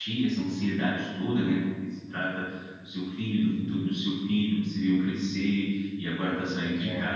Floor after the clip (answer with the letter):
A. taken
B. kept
B